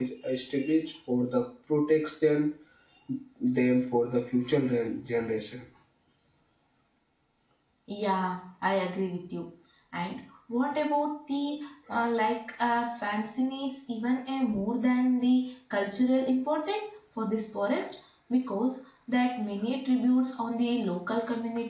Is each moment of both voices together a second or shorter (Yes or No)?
Yes